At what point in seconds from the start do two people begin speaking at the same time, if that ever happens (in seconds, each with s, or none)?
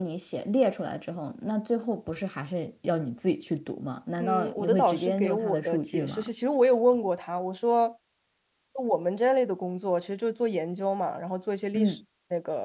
4.2 s